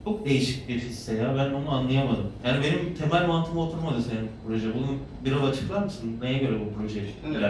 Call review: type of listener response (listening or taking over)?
taking over